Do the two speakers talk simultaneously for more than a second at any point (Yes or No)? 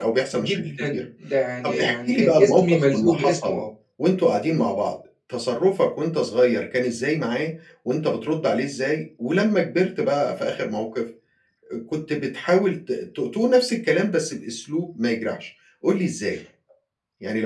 Yes